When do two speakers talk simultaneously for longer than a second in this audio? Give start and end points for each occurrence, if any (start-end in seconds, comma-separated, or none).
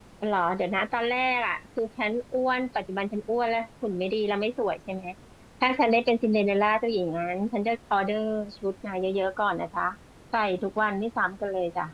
none